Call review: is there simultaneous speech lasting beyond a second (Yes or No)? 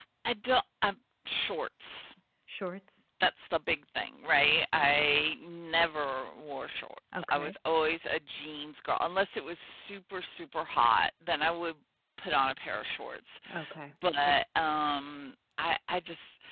No